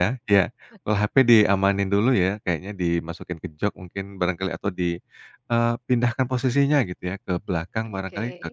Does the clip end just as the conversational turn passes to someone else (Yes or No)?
No